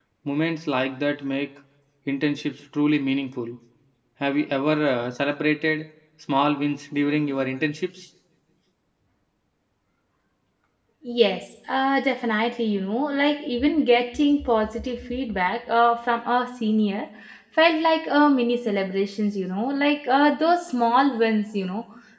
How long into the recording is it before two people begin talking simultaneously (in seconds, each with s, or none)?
none